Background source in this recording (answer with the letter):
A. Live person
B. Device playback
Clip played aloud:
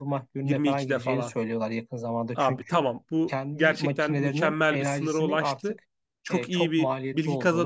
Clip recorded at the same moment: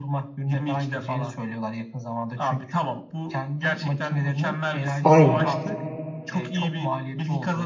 B